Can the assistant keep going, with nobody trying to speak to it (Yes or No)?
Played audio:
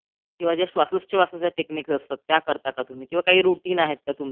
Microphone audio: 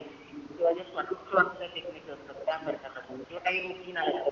Yes